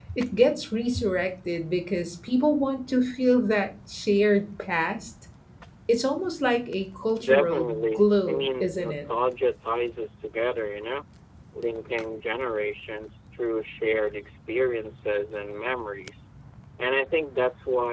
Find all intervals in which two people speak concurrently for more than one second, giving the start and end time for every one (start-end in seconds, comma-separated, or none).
7.2-9.1